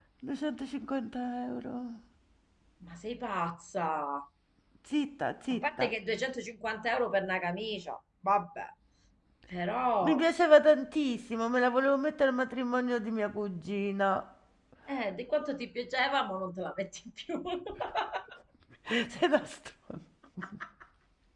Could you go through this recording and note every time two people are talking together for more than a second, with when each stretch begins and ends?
none

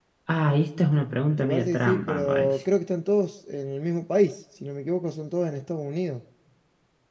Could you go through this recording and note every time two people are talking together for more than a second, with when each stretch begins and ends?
1.4-2.6

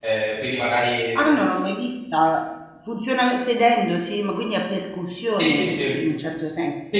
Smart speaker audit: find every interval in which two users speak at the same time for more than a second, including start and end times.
none

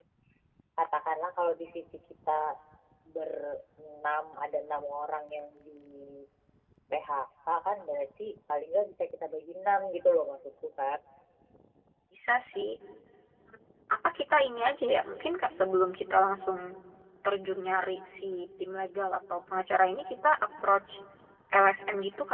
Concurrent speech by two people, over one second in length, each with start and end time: none

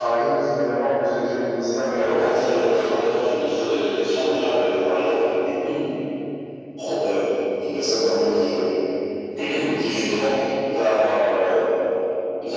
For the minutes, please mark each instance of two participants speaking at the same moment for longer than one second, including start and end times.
1.9-3.1

